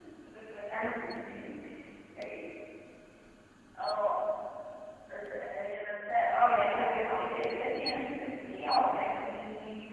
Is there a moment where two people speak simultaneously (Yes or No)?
Yes